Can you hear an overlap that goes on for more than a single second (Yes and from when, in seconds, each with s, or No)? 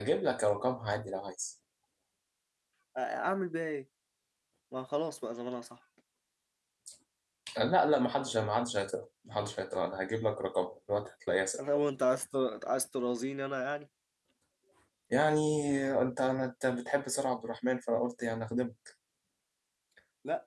No